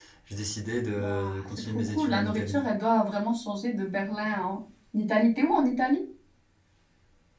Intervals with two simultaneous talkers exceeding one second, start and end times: 1.0-2.6

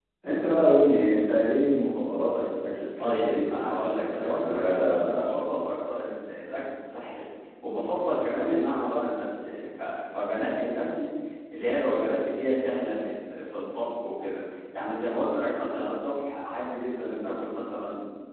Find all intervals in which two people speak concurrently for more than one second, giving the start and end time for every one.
3.0-5.5

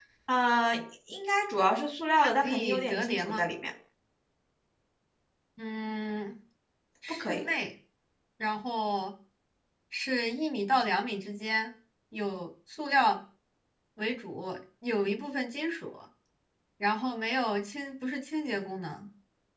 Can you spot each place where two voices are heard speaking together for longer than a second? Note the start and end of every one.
2.2-3.4

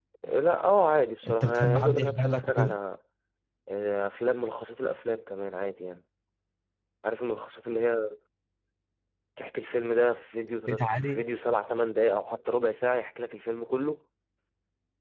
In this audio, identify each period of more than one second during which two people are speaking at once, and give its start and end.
1.3-2.8

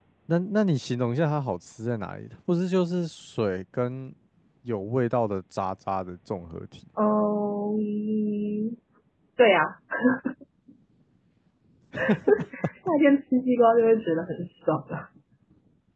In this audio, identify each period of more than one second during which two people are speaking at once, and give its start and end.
none

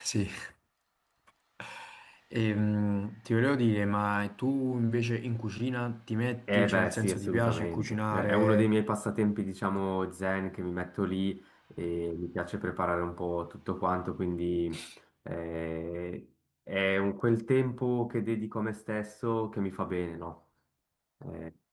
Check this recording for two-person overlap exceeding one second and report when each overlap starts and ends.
6.5-8.7

